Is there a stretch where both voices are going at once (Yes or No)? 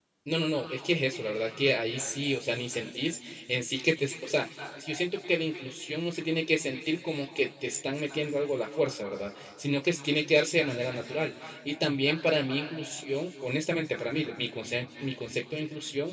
No